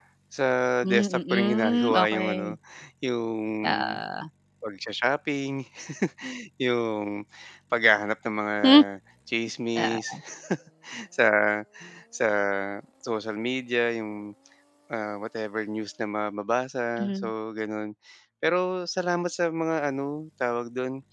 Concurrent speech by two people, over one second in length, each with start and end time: 0.8-2.6

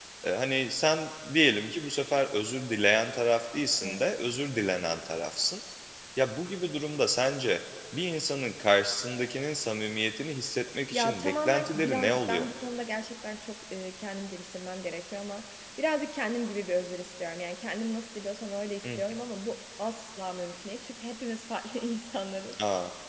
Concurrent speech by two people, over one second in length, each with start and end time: 10.9-12.4

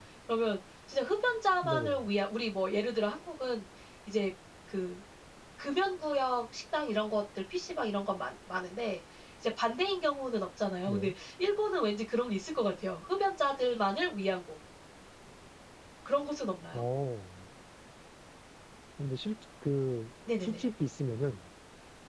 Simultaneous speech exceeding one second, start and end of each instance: none

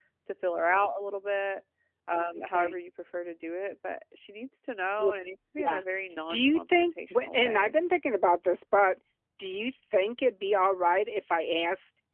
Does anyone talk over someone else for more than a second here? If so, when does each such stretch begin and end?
6.3-7.7

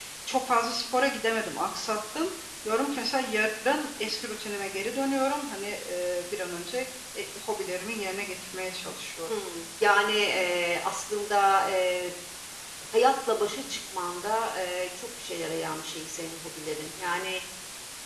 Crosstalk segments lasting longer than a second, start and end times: none

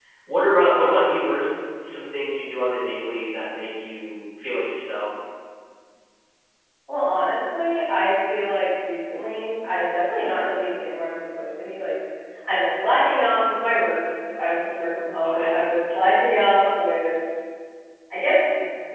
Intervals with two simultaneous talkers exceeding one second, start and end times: none

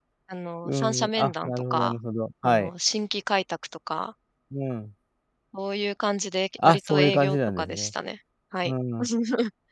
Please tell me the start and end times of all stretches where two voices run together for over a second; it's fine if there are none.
0.7-2.0, 6.6-7.9

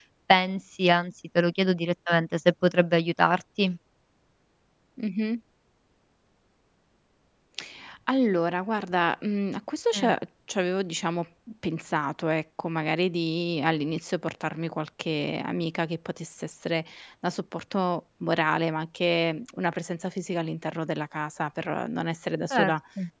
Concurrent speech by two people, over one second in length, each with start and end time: none

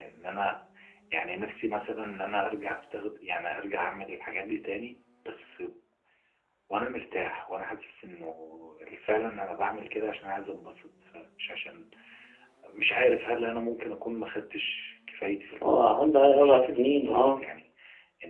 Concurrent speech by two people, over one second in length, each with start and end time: 15.7-17.4

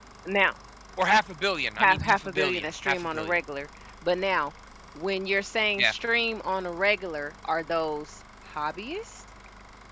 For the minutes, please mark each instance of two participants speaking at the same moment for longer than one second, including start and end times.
1.8-3.4

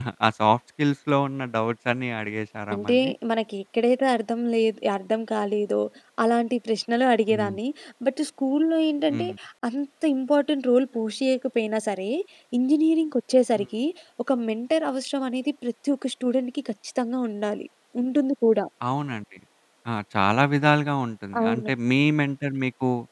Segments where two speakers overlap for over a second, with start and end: none

